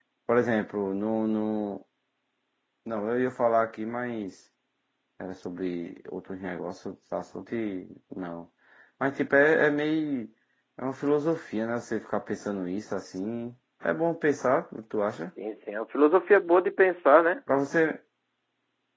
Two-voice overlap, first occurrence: none

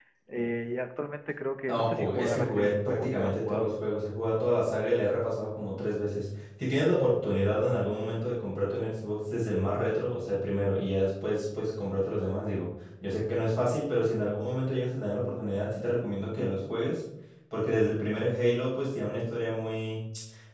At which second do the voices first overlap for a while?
1.7 s

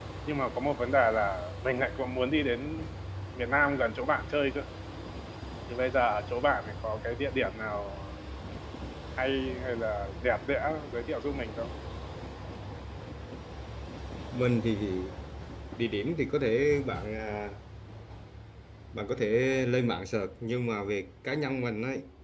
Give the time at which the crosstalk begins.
none

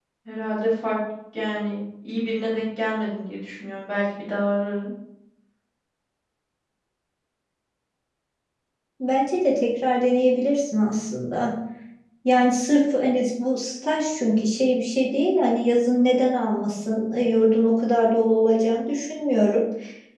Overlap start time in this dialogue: none

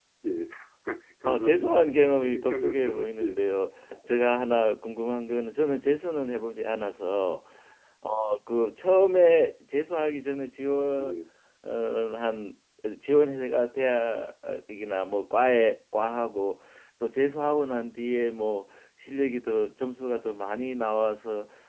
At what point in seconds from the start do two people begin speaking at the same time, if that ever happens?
1.2 s

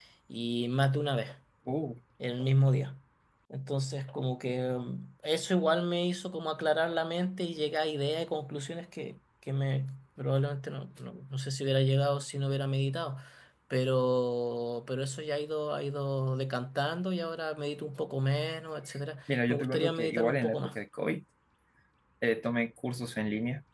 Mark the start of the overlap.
19.3 s

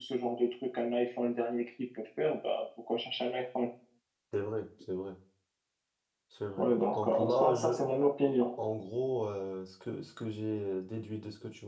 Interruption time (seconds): 6.6 s

